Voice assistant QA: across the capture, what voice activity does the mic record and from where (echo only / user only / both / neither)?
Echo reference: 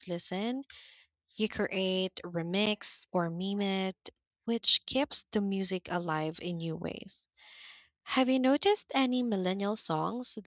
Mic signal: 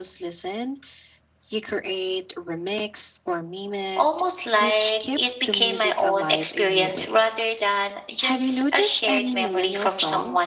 both